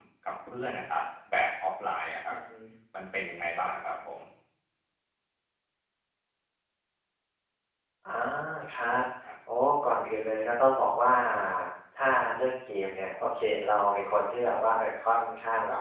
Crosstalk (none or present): none